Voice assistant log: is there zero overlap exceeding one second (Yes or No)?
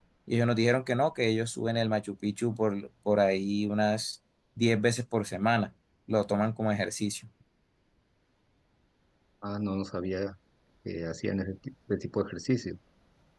Yes